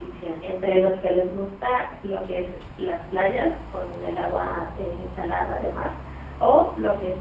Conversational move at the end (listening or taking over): listening